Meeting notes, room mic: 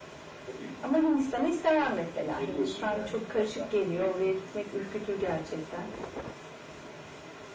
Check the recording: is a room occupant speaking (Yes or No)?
No